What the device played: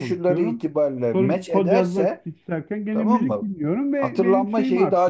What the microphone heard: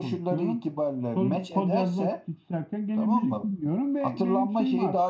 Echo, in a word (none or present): present